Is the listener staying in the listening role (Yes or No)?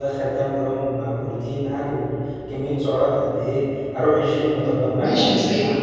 No